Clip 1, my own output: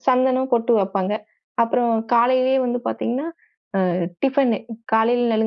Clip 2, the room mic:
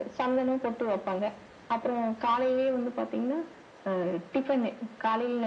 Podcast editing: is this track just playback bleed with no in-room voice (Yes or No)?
Yes